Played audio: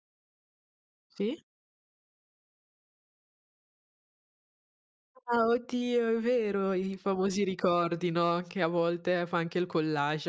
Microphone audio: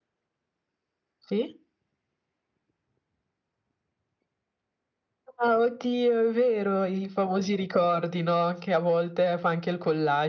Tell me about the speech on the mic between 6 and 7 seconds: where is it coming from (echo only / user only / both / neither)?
echo only